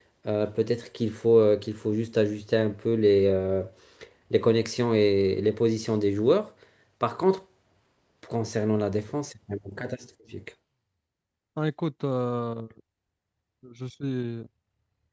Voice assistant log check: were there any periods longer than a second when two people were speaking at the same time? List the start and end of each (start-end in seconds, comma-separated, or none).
none